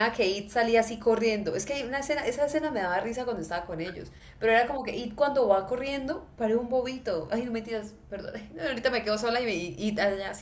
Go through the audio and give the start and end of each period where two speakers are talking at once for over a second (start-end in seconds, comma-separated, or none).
none